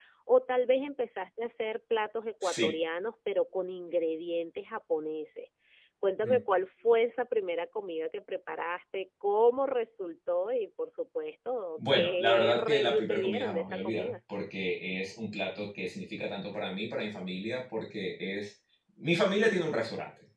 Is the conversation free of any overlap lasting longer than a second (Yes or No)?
No